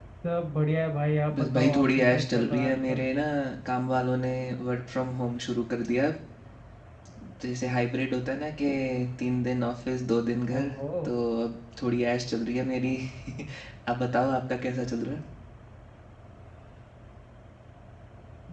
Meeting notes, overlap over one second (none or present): present